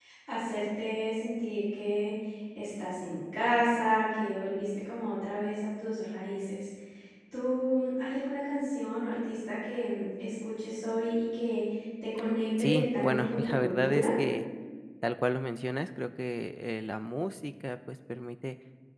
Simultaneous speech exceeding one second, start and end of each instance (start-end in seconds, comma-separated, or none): 12.6-14.1